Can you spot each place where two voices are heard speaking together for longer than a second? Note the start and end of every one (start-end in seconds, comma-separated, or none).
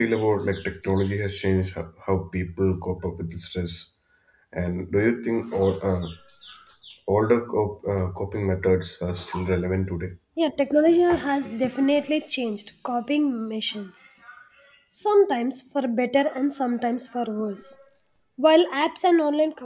none